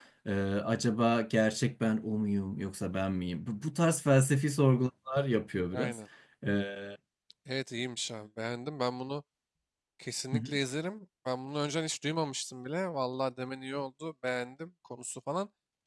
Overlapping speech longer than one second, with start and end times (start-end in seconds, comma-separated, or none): none